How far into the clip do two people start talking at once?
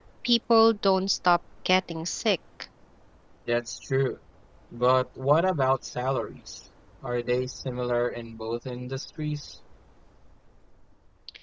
none

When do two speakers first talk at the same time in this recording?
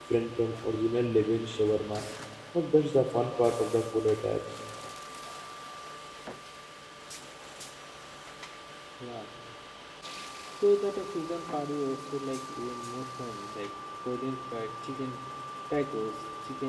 none

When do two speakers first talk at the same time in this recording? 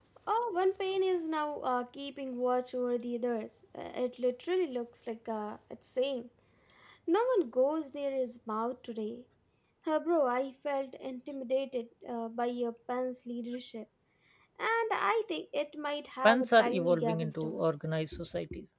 16.2 s

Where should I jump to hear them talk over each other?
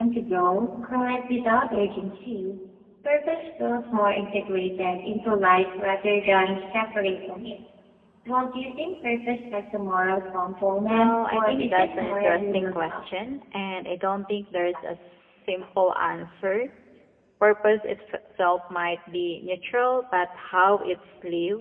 10.9 s

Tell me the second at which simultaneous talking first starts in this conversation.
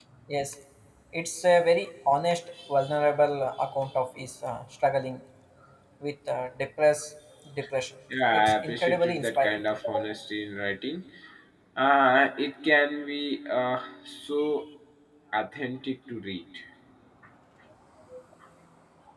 8.3 s

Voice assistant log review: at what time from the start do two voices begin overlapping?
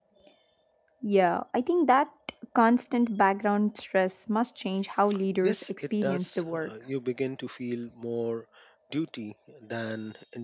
5.4 s

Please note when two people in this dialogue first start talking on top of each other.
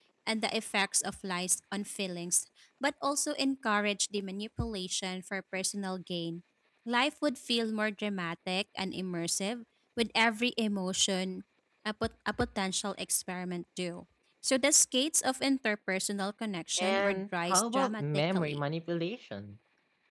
16.8 s

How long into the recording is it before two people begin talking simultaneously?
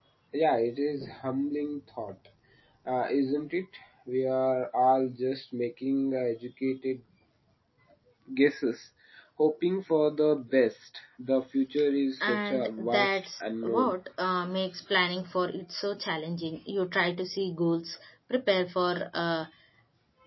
12.2 s

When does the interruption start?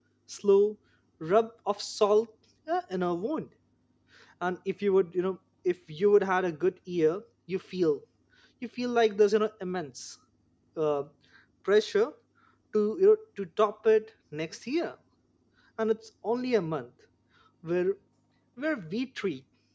none

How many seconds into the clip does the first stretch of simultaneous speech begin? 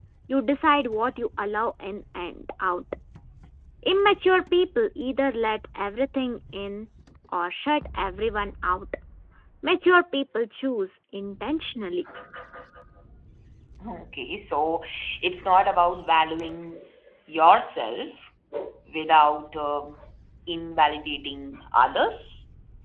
none

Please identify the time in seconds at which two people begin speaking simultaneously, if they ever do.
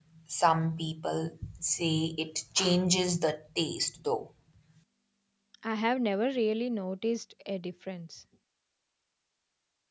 none

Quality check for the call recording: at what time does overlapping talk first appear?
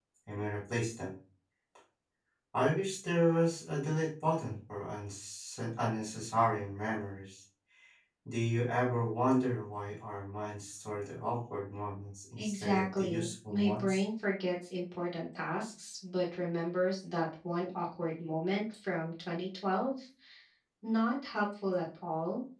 12.4 s

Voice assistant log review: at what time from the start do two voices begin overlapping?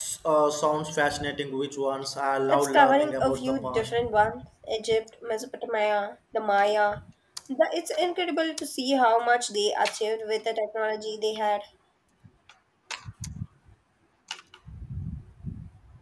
2.5 s

